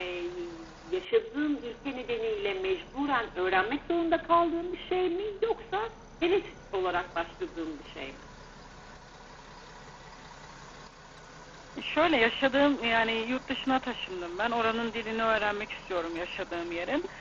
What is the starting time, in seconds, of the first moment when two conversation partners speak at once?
none

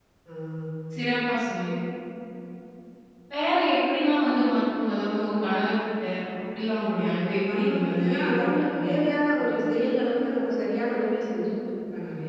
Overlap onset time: 7.5 s

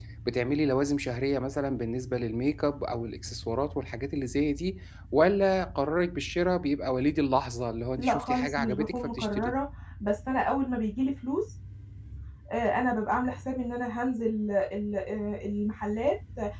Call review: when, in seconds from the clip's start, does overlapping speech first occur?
8.0 s

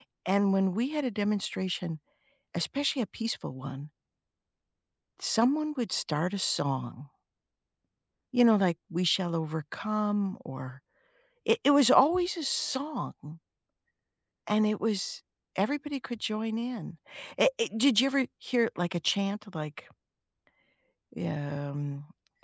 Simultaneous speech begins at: none

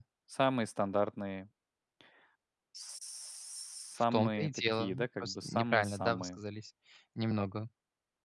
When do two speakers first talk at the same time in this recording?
4.1 s

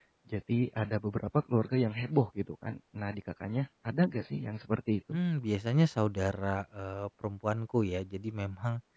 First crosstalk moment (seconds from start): none

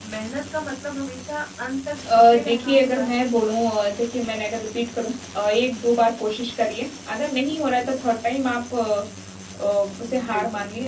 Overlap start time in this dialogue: 1.9 s

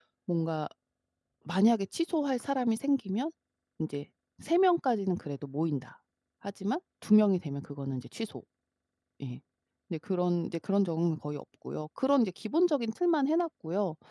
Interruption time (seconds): none

